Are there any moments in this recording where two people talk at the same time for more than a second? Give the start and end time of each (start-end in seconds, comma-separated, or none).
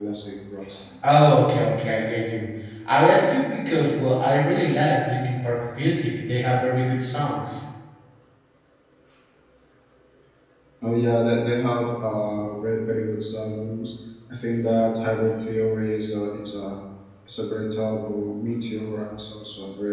none